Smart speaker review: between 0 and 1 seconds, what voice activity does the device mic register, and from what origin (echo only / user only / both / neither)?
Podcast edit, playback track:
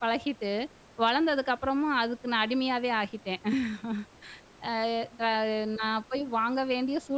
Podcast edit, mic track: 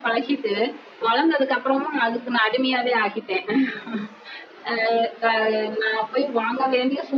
echo only